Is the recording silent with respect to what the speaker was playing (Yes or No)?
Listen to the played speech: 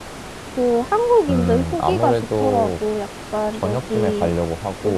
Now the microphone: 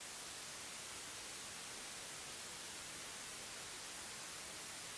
Yes